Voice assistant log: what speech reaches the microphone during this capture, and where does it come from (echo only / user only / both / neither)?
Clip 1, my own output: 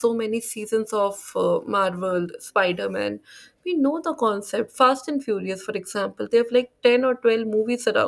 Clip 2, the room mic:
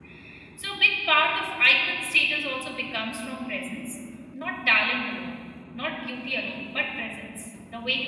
user only